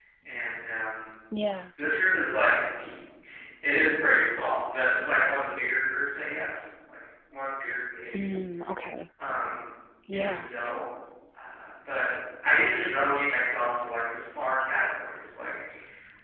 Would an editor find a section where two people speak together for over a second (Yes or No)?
No